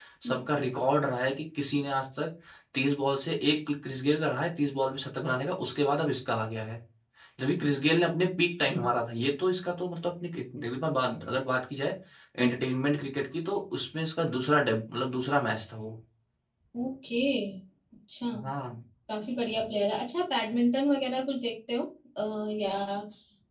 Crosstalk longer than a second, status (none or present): none